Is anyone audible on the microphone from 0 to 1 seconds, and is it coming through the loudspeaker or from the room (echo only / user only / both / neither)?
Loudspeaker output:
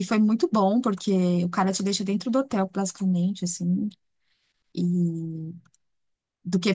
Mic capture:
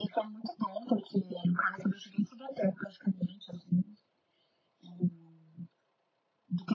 echo only